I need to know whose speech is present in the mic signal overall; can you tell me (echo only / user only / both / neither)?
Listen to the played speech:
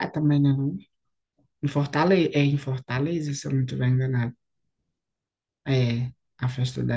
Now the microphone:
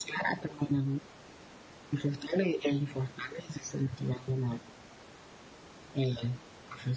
echo only